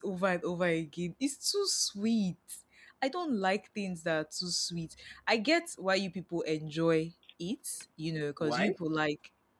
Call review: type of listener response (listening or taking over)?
listening